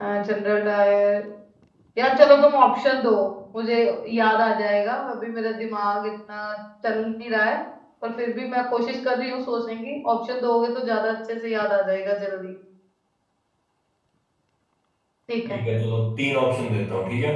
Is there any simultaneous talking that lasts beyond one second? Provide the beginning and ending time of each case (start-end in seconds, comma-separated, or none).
none